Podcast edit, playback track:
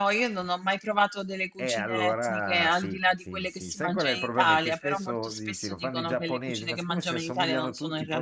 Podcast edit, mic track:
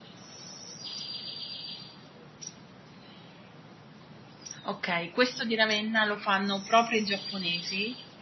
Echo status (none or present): none